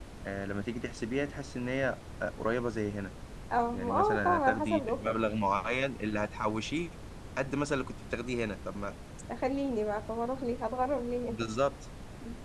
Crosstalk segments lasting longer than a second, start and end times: 3.7-5.2

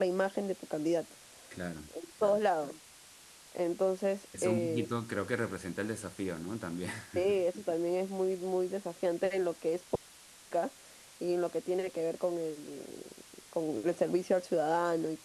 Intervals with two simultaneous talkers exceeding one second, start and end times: none

